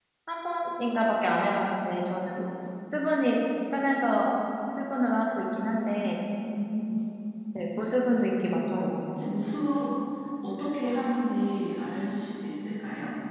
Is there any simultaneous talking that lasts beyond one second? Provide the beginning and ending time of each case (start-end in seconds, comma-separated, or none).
none